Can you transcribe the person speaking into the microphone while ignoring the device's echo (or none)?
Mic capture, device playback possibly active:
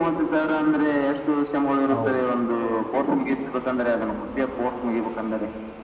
ಹೌದು